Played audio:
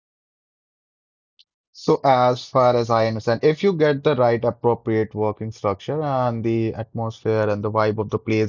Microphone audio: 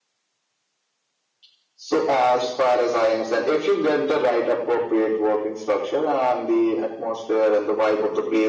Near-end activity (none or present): none